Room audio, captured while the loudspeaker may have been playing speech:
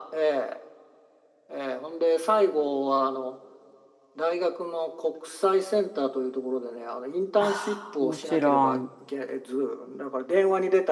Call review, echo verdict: present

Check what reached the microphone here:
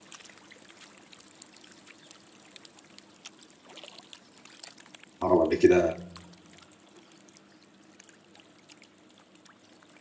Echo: none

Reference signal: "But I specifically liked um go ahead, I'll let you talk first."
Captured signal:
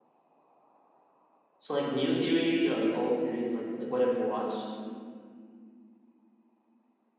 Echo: none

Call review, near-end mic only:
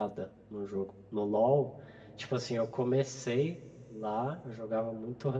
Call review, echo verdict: none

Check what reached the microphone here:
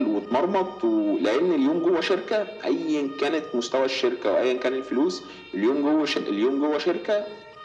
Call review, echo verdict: present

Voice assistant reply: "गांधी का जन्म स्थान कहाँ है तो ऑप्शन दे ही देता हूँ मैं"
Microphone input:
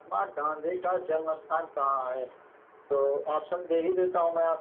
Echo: present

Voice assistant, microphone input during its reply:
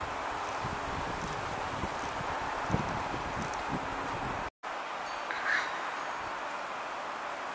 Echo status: none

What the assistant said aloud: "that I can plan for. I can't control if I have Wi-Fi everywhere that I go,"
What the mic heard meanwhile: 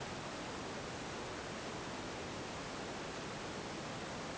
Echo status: none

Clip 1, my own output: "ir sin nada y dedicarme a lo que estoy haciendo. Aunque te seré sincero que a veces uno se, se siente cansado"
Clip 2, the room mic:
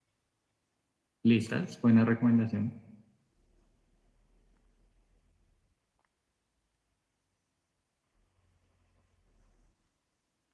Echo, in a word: none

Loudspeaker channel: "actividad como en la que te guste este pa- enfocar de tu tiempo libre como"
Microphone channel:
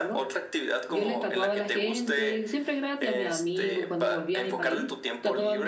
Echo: present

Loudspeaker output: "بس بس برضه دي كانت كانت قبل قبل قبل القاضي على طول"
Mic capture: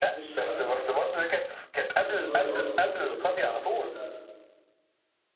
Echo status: present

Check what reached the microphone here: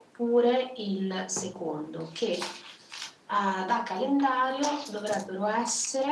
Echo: present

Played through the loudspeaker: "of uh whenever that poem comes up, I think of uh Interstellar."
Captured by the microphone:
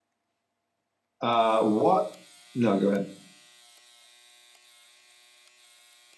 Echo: none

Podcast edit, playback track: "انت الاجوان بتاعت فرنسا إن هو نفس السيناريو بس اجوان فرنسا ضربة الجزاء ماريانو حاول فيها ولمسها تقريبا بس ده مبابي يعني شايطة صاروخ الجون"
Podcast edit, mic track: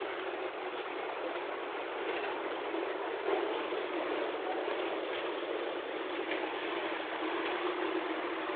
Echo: none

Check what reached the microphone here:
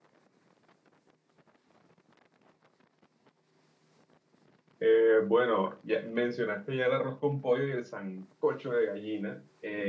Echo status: none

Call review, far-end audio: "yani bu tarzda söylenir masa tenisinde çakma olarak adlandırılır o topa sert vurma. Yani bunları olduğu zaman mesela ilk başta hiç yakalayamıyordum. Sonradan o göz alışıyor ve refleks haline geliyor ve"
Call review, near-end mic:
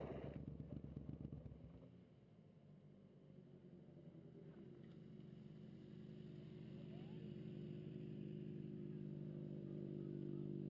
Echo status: none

